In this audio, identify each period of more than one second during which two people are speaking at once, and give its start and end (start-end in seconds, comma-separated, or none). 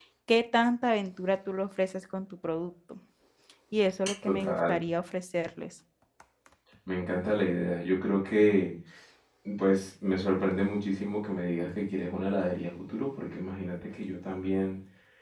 none